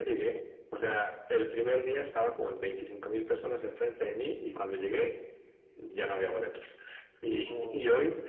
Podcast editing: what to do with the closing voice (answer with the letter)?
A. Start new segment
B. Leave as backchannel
B